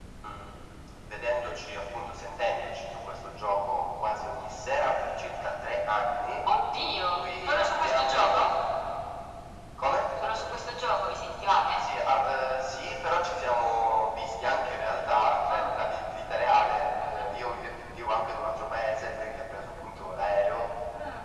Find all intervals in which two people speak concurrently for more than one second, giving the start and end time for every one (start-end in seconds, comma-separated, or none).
6.9-8.5